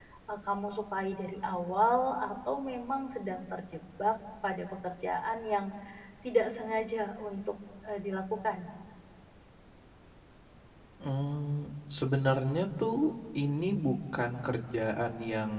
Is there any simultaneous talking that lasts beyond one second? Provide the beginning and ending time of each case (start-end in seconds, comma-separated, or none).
none